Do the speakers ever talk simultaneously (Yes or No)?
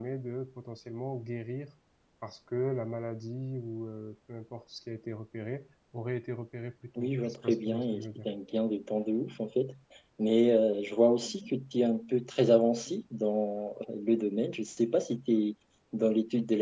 Yes